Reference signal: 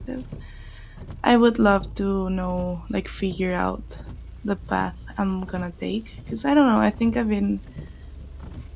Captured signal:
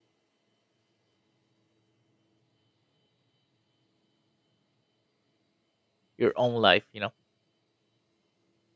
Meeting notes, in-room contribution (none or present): present